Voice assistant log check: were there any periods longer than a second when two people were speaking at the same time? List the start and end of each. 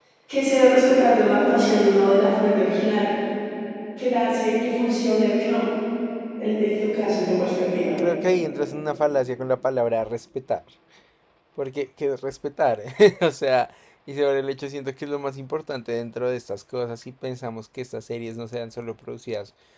none

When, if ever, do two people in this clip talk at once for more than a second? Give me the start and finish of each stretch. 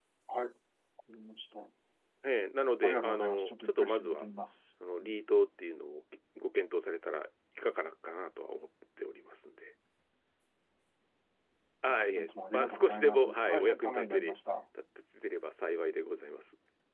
2.9-4.2, 11.9-14.3

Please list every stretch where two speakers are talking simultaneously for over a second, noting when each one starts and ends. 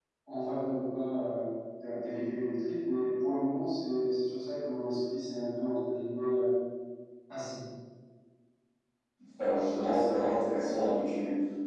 none

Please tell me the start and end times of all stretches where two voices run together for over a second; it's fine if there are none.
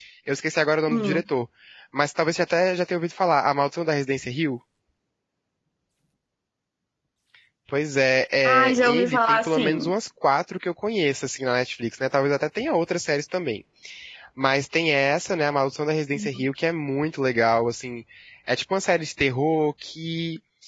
8.4-9.9

